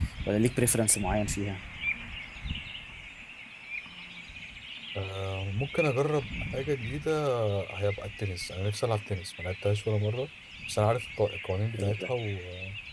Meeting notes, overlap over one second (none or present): none